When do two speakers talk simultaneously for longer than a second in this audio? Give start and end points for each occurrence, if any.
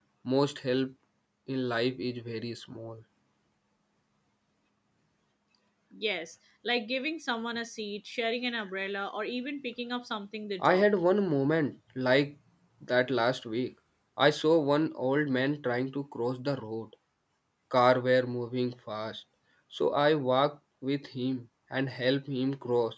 none

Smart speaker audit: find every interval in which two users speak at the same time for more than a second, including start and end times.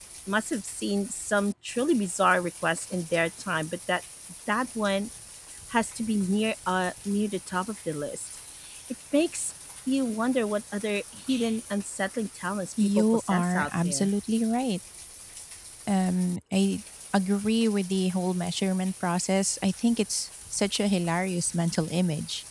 12.8-14.1

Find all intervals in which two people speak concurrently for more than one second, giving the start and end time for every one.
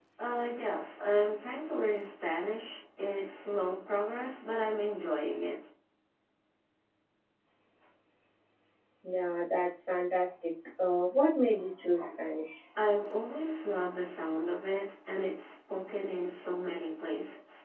none

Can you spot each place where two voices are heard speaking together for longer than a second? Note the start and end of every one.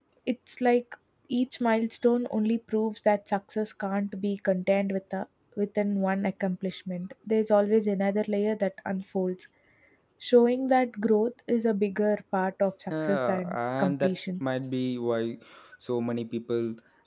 12.9-14.1

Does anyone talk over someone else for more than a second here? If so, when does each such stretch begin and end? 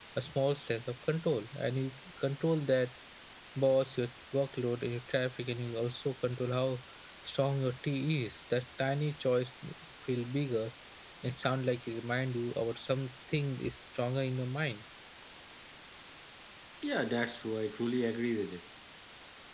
none

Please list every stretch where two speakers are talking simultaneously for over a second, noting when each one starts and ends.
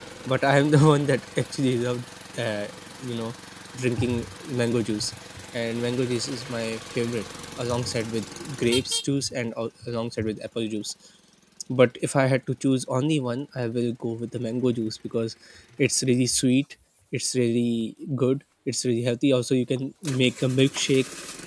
none

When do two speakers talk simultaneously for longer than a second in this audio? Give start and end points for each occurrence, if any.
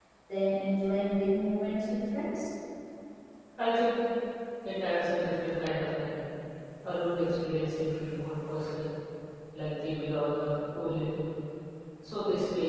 none

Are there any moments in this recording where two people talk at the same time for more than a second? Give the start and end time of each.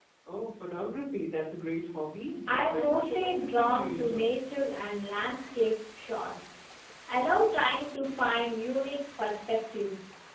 2.5-4.3

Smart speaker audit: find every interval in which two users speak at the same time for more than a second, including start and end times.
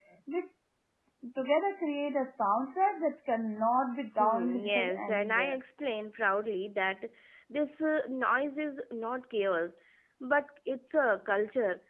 4.2-5.6

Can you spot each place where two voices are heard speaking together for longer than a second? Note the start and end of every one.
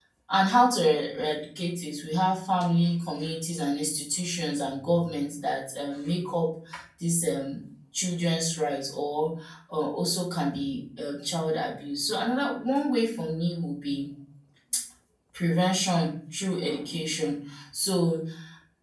none

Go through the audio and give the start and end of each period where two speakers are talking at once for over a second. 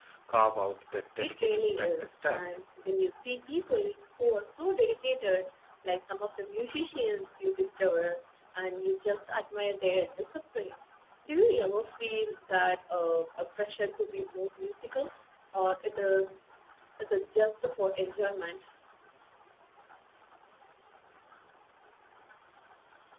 1.2-2.4

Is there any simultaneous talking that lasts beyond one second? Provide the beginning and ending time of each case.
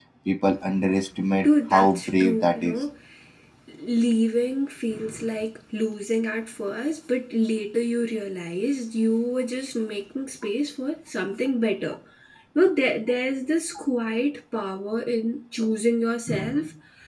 1.4-2.8

